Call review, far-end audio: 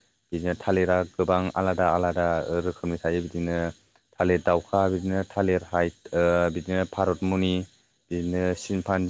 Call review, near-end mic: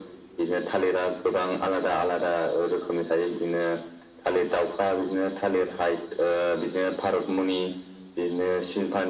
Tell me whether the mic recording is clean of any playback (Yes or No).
No